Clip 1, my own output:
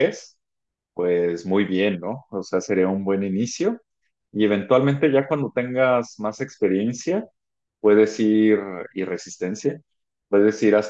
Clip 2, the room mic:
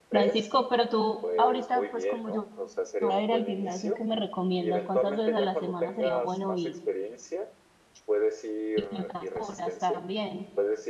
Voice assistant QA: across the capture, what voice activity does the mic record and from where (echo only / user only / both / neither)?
both